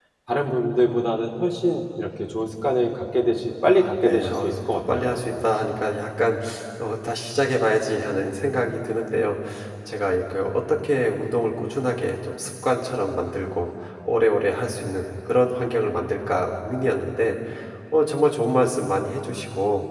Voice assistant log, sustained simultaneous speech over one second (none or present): present